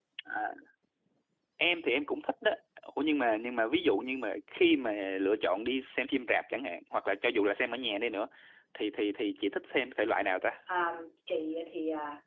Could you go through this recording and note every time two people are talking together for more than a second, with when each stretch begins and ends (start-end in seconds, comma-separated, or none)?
none